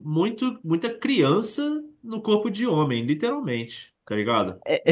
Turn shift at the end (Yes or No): Yes